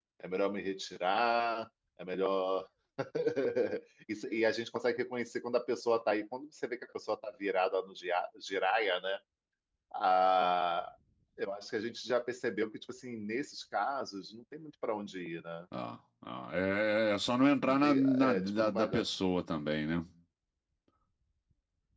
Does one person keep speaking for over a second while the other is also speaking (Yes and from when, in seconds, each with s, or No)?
Yes, from 17.6 s